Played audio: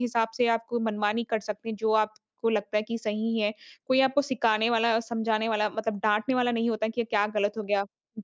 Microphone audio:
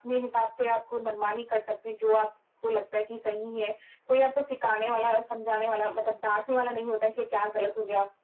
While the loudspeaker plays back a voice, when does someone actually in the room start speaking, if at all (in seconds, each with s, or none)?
none